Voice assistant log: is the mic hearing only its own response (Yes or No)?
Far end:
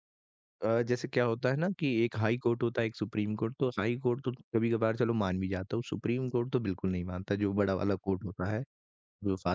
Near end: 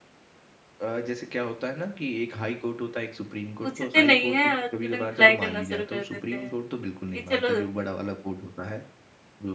No